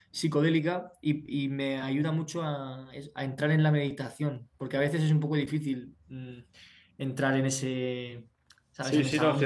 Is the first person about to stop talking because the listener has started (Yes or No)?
Yes